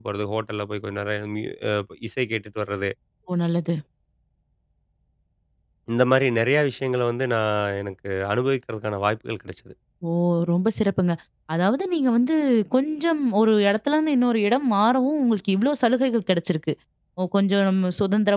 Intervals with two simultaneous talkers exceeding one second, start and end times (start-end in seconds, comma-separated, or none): none